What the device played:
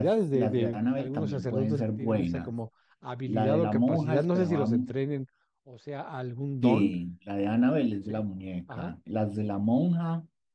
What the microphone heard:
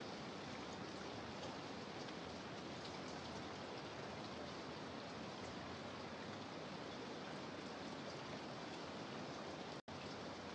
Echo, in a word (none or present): none